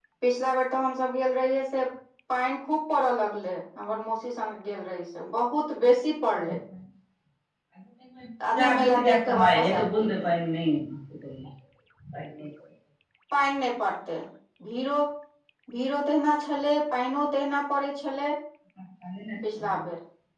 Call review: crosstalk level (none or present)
present